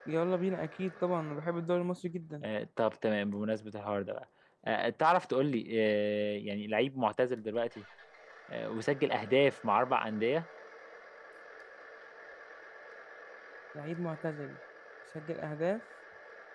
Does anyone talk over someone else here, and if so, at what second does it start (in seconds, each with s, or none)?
none